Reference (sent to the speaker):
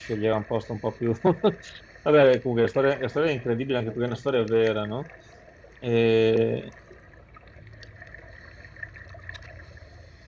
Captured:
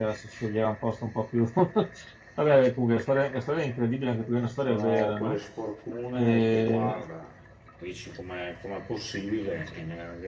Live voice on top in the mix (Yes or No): No